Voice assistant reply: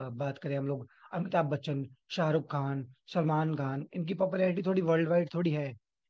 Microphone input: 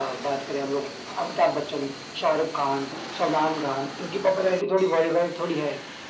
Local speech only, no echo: none

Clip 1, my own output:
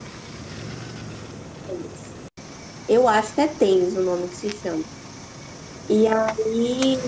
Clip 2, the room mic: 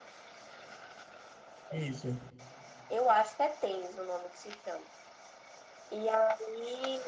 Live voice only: Isso.

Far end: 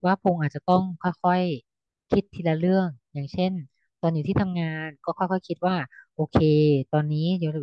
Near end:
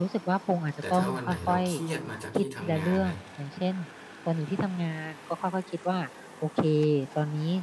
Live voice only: แต่ถ้าวันไหนเราเครียดมาจากที่ทำงานนะ

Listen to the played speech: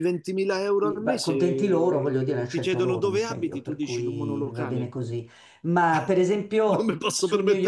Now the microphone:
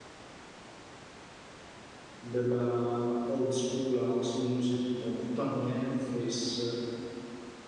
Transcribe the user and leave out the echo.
della old school house music come Tony Humphries

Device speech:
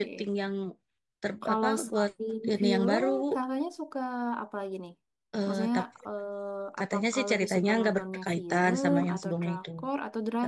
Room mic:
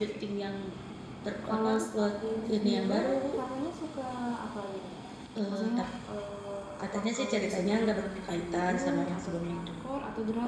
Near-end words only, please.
none

